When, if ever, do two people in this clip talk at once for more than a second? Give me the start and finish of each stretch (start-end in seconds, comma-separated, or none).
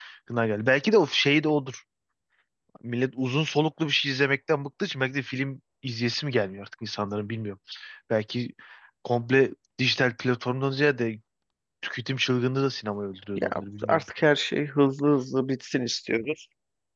none